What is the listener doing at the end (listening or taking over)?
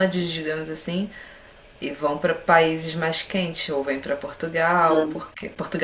listening